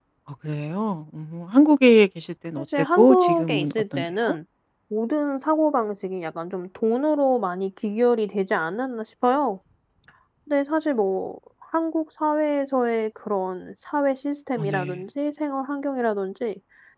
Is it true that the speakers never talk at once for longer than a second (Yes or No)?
No